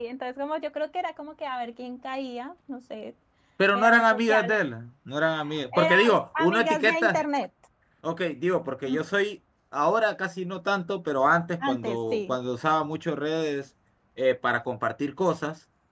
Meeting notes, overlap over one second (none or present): present